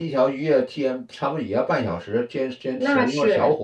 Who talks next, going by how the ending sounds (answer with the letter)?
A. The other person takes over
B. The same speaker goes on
B